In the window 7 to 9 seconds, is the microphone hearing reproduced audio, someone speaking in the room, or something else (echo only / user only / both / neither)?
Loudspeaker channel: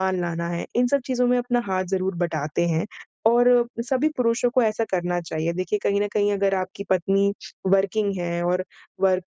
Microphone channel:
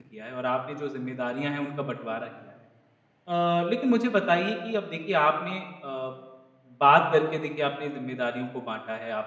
user only